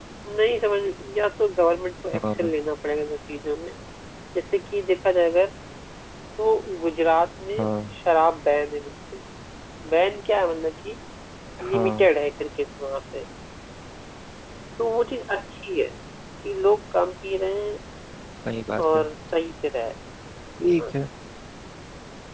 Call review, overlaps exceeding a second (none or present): none